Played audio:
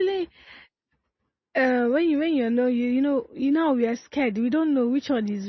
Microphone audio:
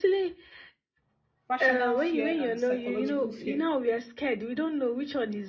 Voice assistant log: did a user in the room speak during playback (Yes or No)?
Yes